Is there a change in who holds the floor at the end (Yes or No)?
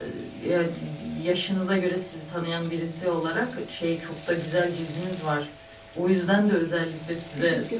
No